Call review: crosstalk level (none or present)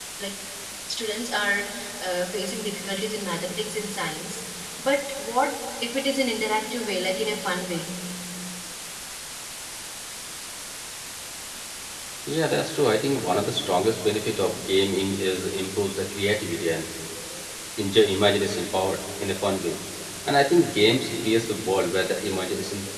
none